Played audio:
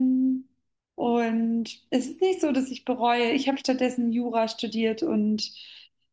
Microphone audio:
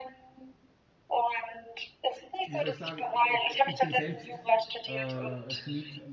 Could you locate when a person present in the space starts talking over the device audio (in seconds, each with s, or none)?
2.4 s